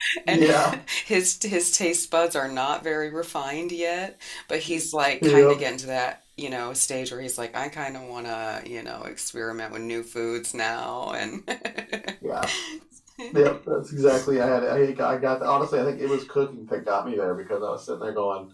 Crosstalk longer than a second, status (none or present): none